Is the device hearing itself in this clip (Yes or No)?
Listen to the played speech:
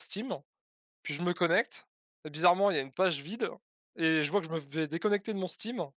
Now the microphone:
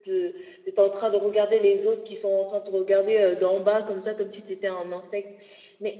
No